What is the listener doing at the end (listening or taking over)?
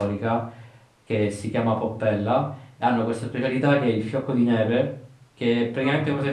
listening